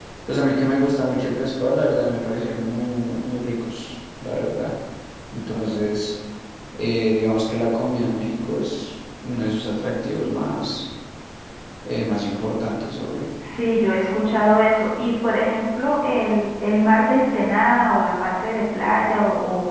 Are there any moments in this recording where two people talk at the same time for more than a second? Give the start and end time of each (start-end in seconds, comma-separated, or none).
none